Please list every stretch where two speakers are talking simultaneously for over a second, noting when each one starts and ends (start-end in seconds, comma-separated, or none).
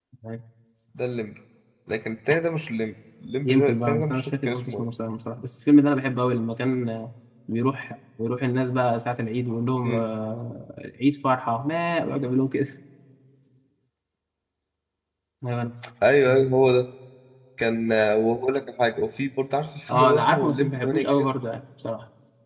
3.5-4.8, 19.9-21.3